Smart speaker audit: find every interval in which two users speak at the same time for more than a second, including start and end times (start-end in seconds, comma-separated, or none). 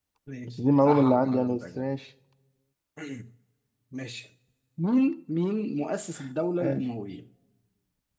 0.6-1.8